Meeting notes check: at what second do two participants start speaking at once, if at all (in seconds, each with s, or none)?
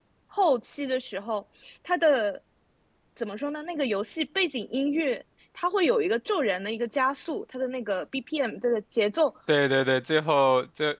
none